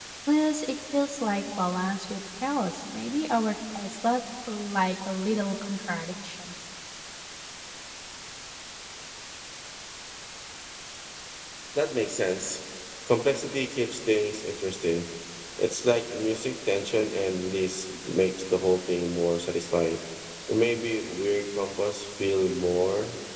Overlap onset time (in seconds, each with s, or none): none